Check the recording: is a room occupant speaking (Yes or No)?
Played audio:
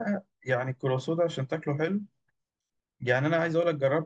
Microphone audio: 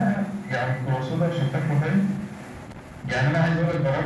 No